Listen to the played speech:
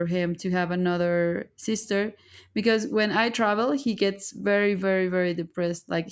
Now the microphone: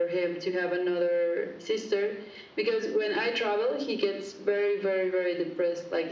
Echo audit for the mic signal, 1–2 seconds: echo only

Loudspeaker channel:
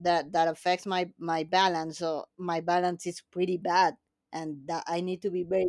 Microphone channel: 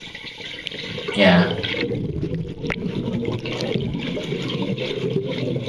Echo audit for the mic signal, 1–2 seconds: user only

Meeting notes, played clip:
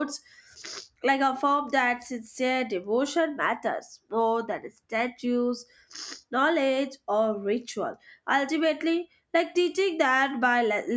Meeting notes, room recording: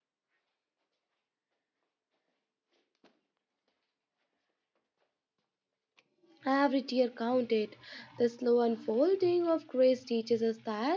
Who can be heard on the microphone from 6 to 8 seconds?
user only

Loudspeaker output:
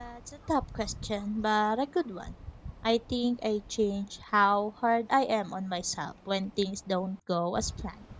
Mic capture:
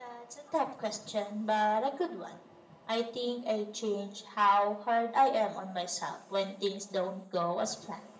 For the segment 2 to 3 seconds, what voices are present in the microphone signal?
echo only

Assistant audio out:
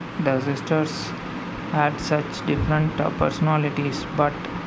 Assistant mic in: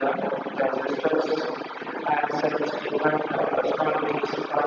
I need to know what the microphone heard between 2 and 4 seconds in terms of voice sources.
echo only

